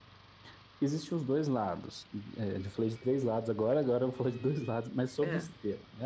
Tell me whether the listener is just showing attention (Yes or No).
Yes